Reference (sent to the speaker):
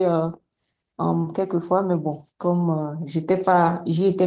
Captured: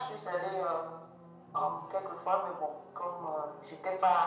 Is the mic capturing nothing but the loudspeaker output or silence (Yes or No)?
Yes